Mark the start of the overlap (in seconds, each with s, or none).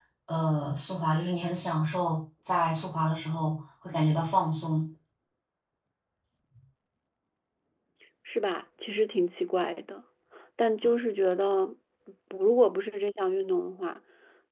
none